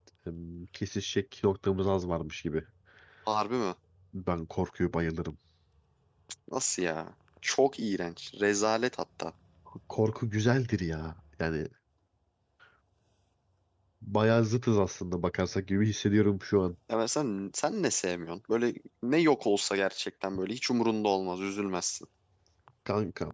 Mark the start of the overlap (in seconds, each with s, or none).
none